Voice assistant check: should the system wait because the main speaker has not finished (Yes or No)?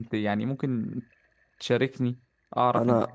No